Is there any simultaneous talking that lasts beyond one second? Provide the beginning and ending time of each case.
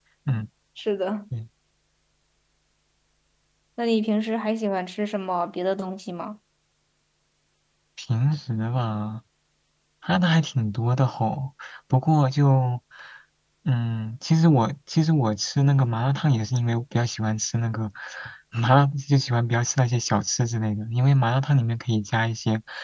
none

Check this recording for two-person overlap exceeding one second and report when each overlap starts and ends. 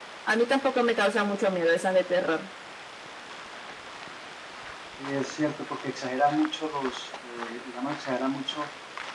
none

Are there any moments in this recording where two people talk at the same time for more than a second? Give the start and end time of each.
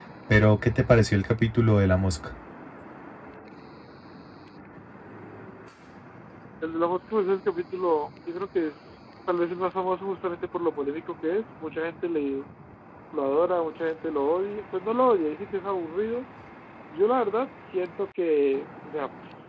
none

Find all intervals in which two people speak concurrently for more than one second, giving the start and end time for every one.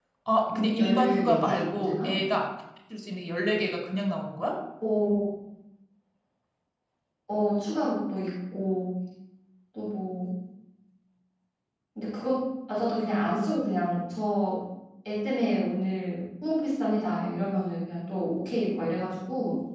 0.8-2.2

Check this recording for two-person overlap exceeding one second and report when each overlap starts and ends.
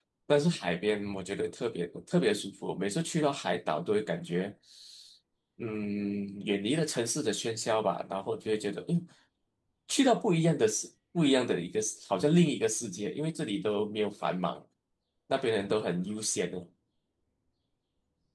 none

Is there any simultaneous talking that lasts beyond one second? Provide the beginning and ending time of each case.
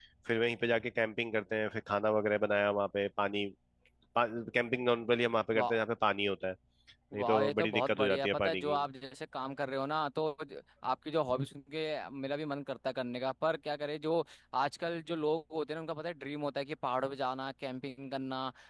7.2-8.8

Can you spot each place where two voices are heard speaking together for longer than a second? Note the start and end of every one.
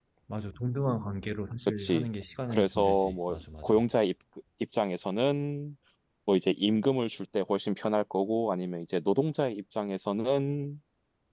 2.5-3.8

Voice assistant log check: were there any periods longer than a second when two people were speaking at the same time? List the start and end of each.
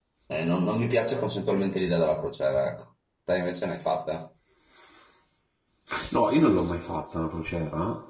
none

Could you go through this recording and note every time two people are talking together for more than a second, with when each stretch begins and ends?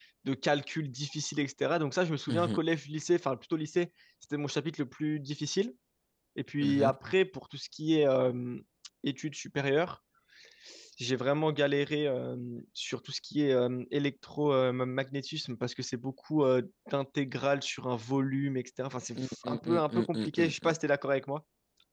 19.2-20.8

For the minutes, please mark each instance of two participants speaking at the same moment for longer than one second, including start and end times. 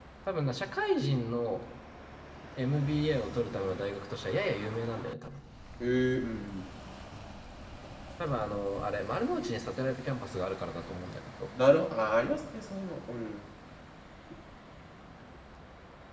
none

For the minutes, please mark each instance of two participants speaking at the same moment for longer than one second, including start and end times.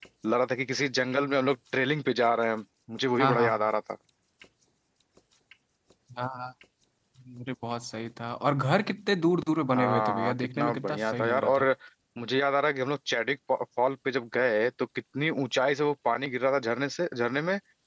9.8-11.6

